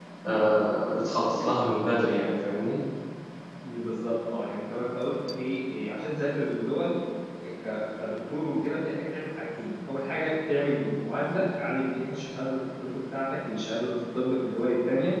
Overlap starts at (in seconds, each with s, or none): none